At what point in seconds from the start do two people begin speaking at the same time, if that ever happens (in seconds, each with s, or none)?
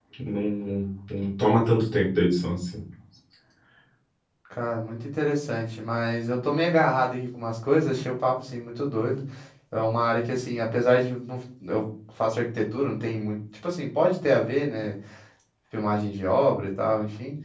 none